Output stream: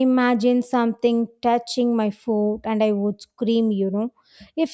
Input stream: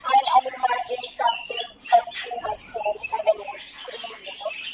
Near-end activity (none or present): none